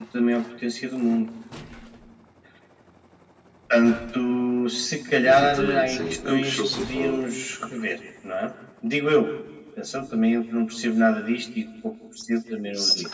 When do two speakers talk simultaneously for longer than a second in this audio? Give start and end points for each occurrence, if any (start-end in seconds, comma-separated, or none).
5.2-7.2